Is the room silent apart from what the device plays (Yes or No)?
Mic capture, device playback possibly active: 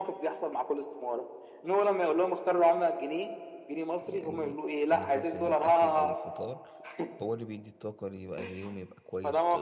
No